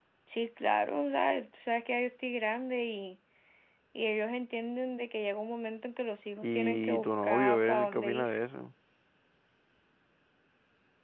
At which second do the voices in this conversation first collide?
6.4 s

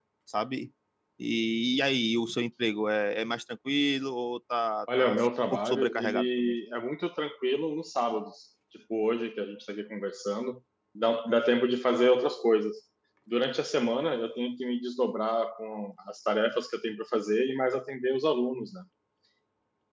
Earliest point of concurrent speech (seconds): 4.9 s

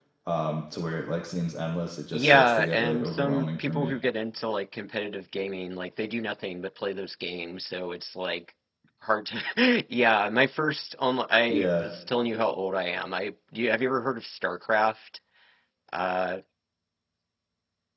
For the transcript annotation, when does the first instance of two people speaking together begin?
2.1 s

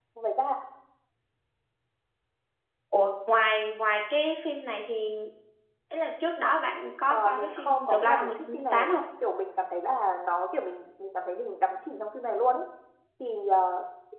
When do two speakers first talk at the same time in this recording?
7.1 s

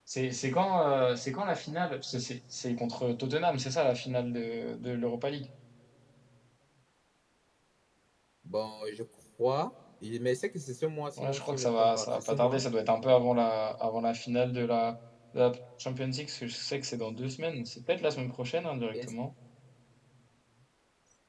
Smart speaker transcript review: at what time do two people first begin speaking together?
11.2 s

